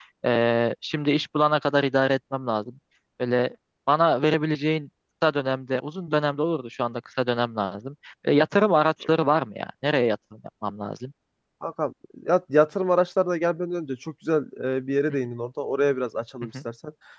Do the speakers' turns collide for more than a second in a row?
No

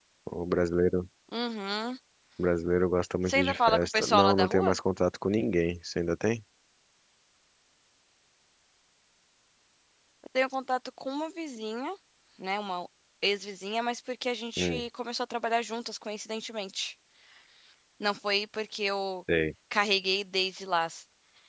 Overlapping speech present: Yes, from 3.3 s

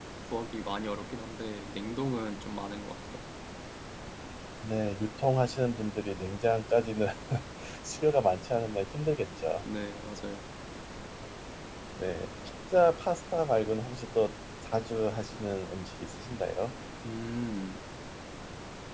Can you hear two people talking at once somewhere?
No

